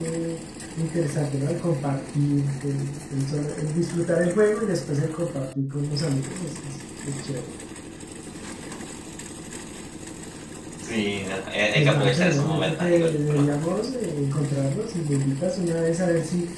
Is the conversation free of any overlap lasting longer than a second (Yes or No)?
No